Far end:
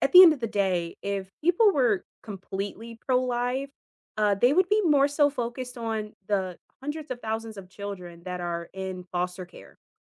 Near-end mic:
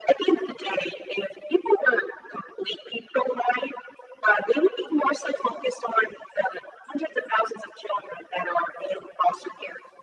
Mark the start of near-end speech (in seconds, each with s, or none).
none